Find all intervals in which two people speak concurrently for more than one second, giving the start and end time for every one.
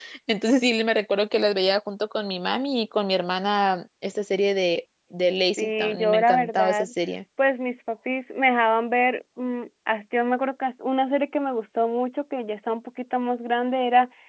5.6-6.9

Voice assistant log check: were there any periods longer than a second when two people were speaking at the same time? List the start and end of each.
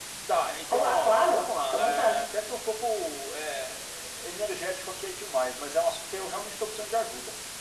0.7-2.2

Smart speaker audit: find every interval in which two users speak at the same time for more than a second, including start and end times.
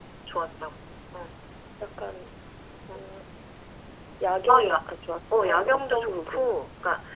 5.3-6.6

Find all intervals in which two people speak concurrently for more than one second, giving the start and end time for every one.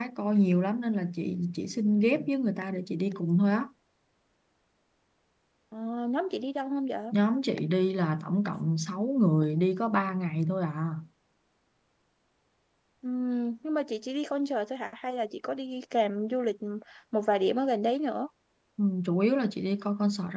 none

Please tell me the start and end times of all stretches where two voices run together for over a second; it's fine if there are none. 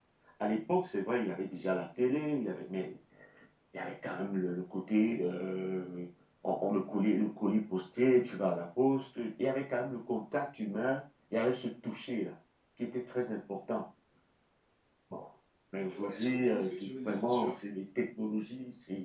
15.9-17.5

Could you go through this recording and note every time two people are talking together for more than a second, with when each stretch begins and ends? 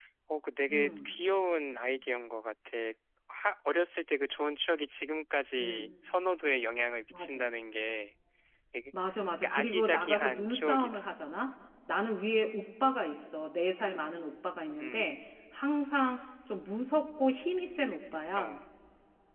9.4-11.1

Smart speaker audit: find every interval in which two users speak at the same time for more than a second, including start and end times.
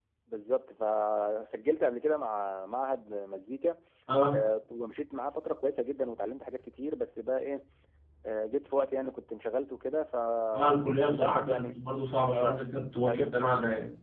10.5-11.8

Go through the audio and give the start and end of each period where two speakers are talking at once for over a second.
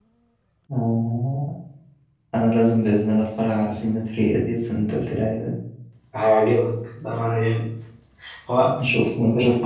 none

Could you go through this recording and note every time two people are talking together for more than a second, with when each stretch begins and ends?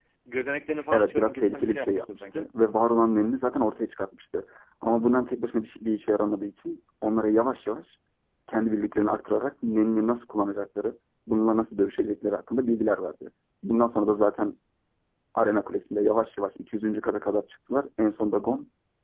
0.9-2.5

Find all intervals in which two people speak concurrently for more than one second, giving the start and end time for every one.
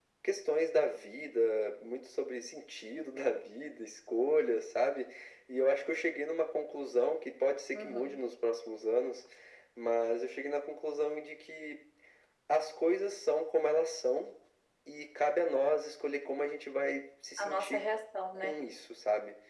none

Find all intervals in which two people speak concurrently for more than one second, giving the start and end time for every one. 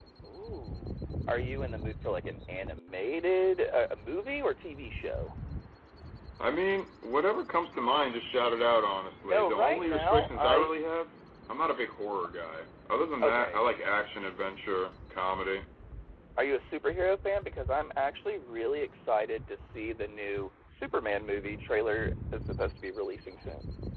9.2-10.7

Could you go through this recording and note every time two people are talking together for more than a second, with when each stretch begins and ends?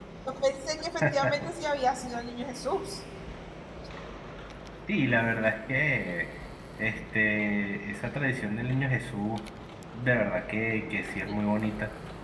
none

